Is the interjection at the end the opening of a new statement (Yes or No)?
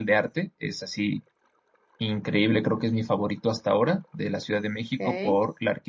No